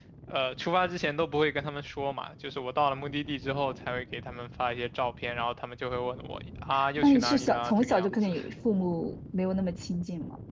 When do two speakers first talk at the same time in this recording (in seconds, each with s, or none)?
6.7 s